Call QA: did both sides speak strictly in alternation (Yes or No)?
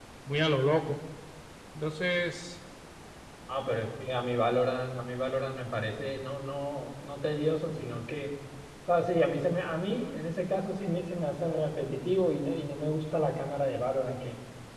Yes